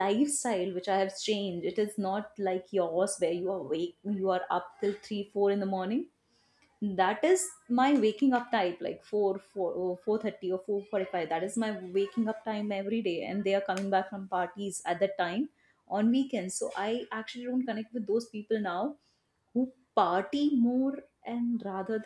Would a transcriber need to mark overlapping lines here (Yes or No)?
No